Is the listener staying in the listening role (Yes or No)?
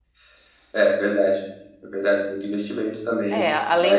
No